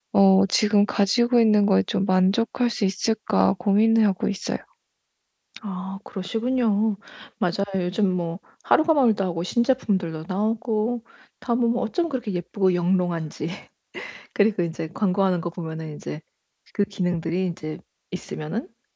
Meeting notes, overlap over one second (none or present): none